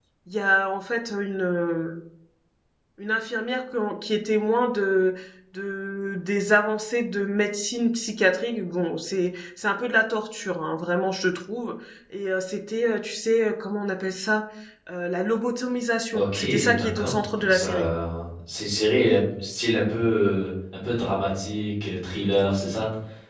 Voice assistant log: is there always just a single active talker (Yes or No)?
No